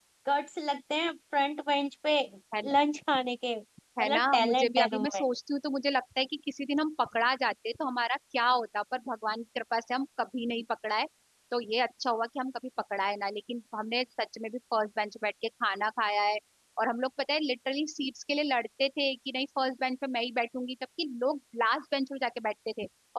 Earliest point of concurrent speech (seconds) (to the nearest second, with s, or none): 4 s